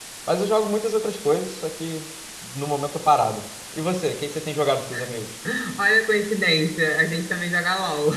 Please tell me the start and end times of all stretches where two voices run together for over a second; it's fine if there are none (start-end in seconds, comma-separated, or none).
none